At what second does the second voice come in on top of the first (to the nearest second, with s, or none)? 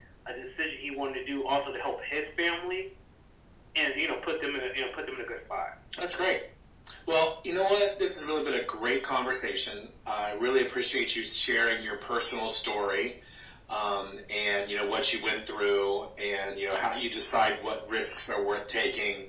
none